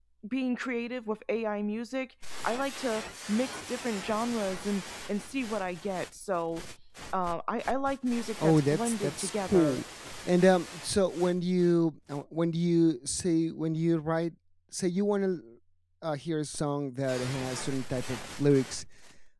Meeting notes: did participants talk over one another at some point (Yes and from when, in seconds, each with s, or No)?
Yes, from 8.4 s